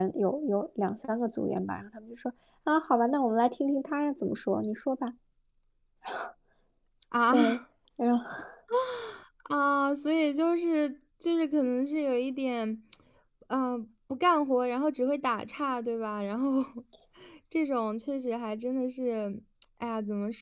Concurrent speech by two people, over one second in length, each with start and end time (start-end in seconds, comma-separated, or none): none